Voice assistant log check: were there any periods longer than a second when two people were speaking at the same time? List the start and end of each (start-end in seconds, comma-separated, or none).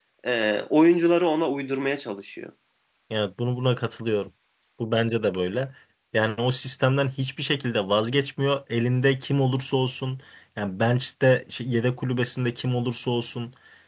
none